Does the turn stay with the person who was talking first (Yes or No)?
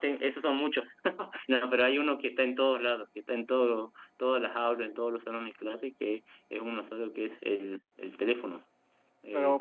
No